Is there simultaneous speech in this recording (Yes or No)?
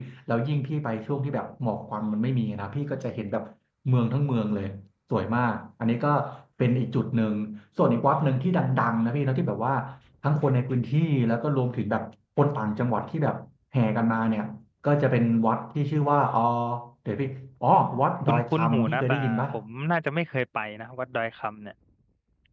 Yes